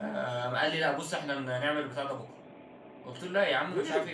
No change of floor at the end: Yes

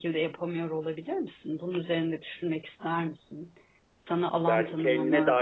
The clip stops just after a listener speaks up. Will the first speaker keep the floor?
No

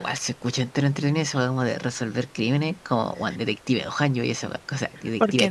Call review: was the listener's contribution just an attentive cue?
No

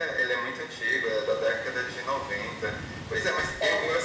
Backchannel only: Yes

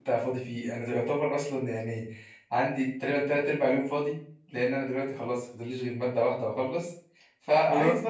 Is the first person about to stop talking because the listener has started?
No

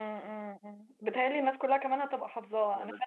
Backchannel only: Yes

